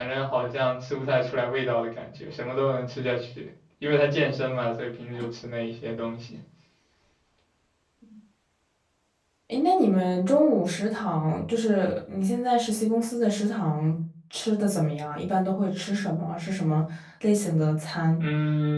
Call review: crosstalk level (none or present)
none